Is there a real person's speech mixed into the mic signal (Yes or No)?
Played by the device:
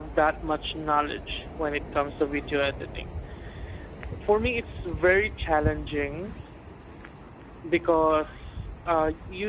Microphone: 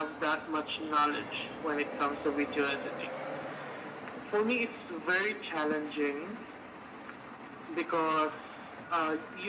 No